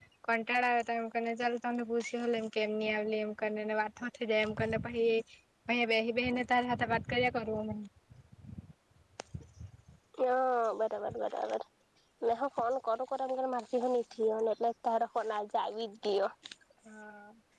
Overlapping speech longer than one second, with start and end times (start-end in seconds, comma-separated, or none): none